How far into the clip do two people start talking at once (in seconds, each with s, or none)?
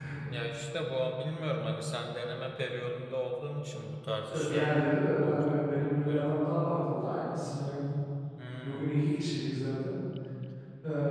4.3 s